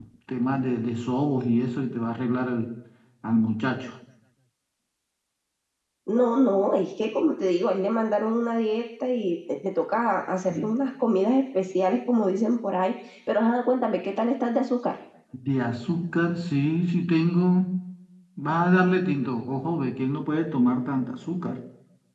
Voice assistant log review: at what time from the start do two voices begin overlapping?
none

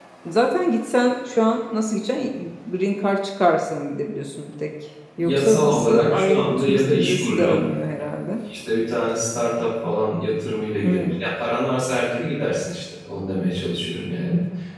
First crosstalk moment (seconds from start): 5 s

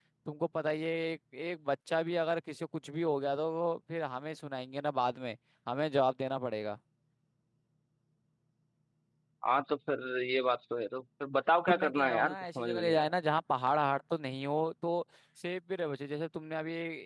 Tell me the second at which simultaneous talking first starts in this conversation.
12 s

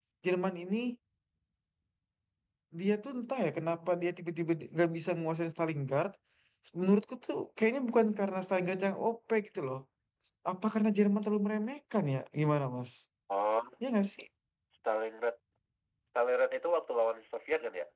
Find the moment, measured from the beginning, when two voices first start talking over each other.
none

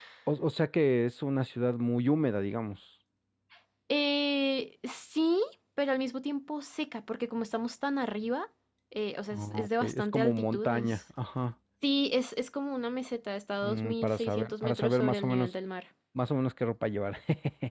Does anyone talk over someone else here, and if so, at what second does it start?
9 s

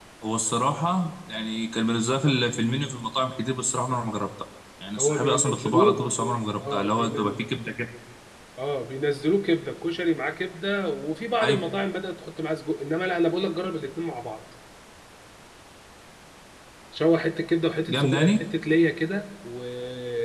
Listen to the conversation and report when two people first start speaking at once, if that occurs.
5 s

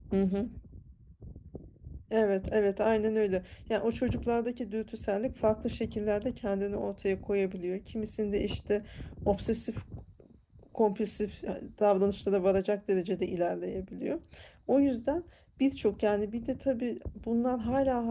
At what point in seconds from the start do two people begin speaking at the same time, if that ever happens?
none

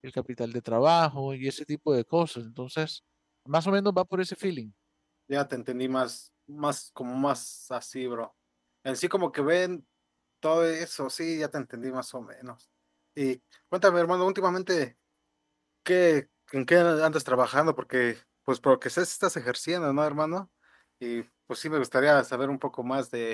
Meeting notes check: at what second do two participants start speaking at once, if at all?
none

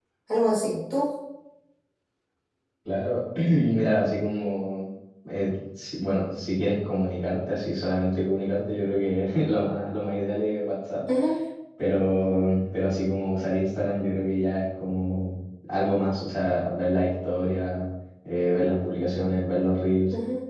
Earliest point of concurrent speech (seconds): none

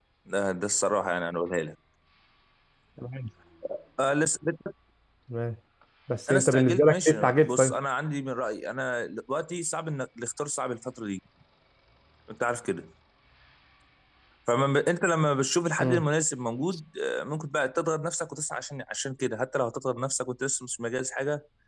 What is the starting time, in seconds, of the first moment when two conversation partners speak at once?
6 s

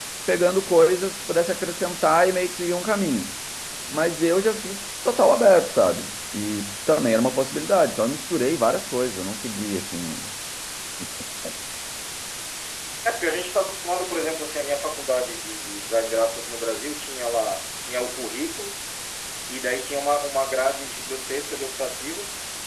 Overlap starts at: none

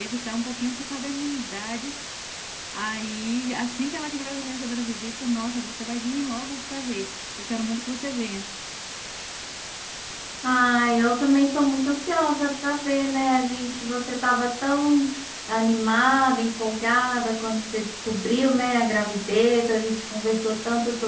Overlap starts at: none

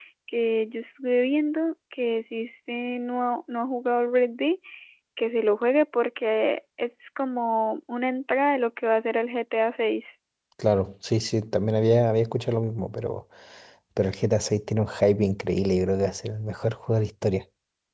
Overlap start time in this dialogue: none

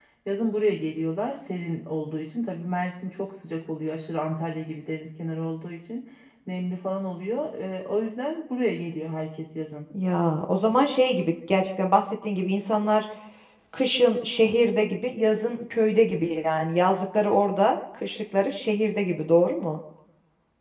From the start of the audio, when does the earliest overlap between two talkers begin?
none

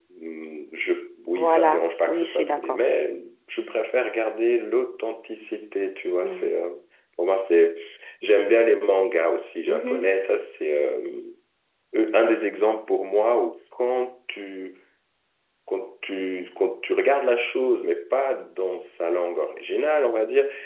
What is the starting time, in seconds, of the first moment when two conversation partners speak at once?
1 s

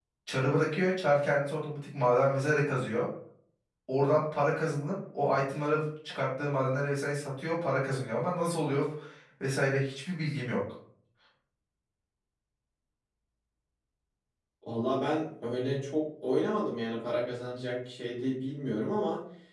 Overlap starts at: none

